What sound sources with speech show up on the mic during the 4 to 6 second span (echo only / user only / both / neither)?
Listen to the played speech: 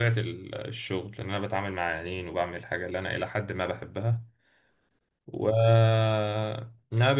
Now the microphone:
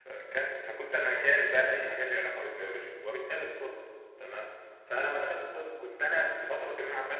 user only